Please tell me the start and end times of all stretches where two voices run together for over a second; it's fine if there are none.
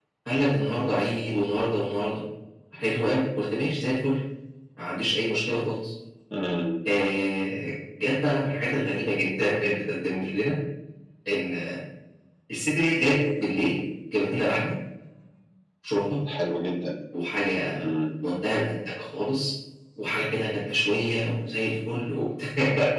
none

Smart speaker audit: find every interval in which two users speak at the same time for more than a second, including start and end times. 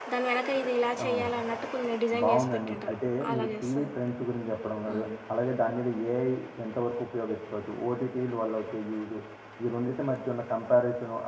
2.2-4.0

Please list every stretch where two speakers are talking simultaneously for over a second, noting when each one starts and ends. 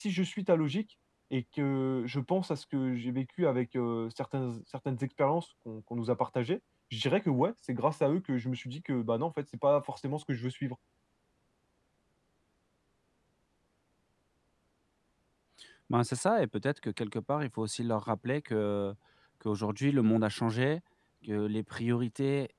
none

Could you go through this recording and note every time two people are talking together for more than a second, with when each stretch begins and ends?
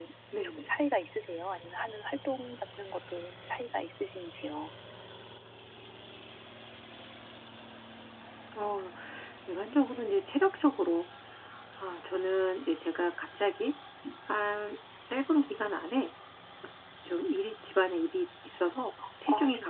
none

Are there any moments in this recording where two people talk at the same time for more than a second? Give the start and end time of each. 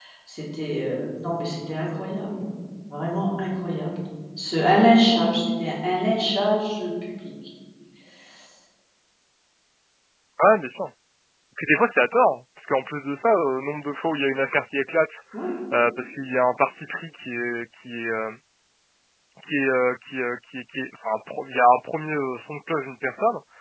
none

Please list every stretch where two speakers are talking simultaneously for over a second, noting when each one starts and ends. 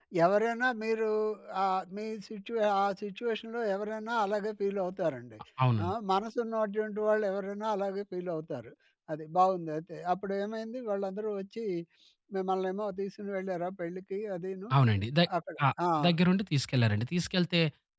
none

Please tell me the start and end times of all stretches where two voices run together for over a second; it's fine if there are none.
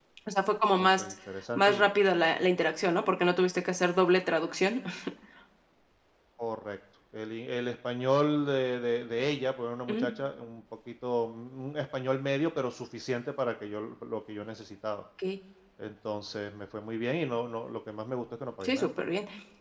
none

